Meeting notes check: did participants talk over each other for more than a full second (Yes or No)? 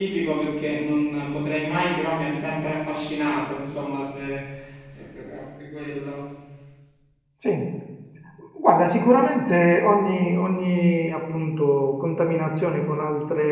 No